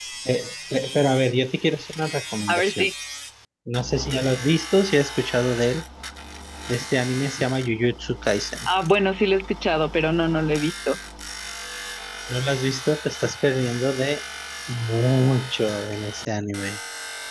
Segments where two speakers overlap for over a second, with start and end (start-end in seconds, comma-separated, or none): none